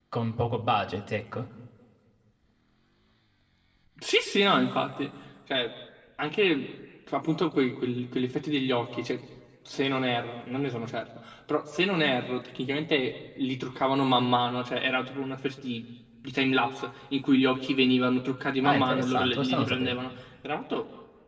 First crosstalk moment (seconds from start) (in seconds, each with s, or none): 18.6 s